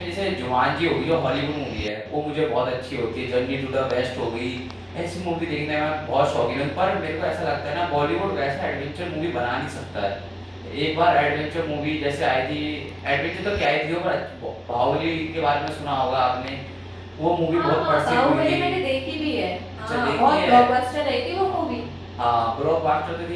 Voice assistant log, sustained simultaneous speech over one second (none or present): present